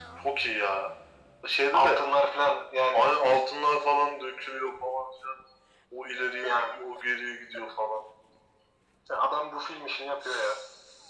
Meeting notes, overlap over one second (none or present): none